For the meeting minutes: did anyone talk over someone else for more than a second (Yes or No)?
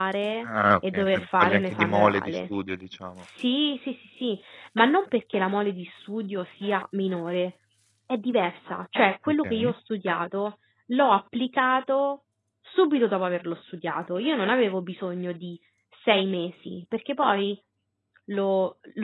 Yes